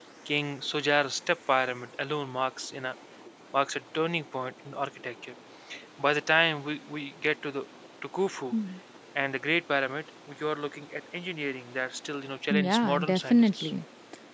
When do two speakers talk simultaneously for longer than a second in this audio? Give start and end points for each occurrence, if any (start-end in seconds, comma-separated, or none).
12.5-13.7